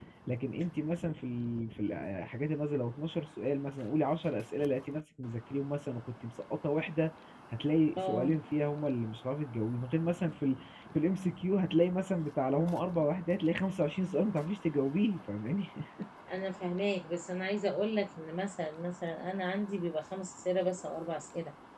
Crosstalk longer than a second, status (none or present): none